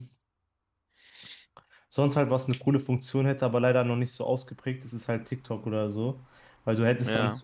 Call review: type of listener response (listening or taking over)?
listening